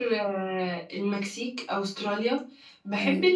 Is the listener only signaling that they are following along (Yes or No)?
Yes